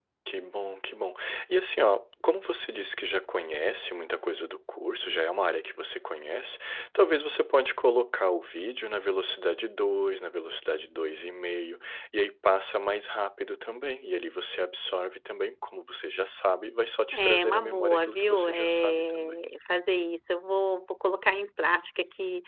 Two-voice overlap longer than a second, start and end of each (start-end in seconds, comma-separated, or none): 17.1-19.4